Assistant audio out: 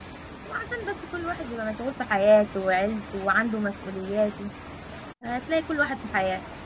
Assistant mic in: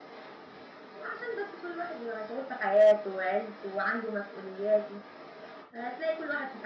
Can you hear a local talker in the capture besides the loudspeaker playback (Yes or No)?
No